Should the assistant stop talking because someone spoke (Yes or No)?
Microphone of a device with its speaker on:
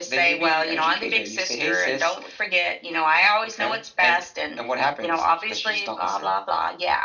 No